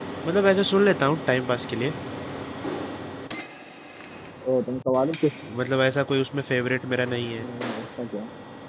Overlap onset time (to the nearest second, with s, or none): none